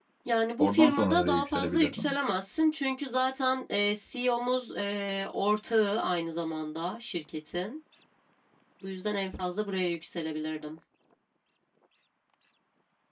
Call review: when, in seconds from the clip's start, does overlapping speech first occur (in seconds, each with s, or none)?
0.6 s